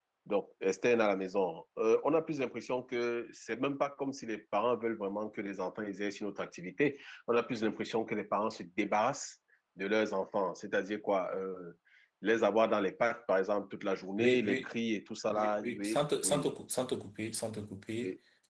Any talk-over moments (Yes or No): Yes